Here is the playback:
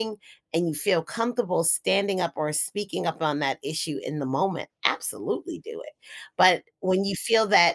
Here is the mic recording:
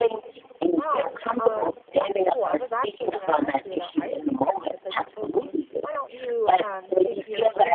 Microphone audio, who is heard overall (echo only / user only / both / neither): both